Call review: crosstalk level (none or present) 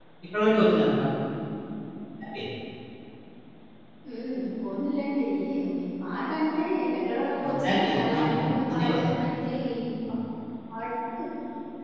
present